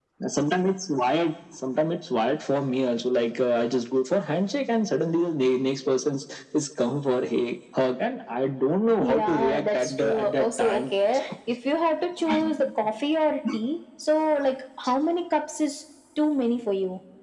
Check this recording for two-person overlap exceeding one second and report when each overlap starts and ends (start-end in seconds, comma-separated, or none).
9.0-10.8